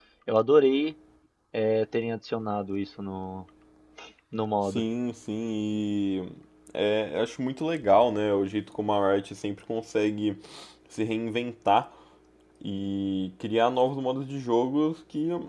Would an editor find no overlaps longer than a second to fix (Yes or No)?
Yes